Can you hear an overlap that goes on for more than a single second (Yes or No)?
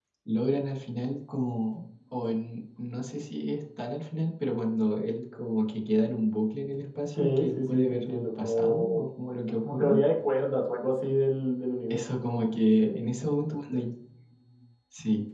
Yes